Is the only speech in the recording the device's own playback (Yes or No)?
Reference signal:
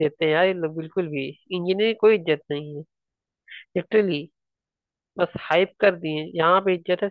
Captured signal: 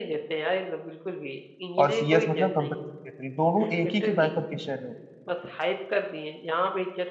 No